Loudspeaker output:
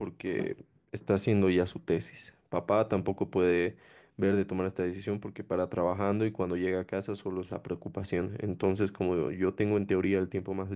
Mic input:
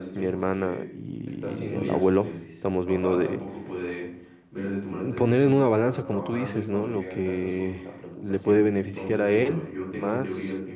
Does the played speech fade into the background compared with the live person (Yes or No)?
Yes